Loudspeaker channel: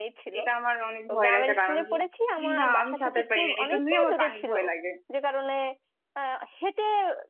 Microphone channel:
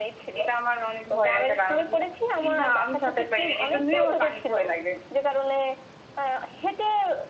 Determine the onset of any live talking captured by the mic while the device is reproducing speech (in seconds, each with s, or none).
none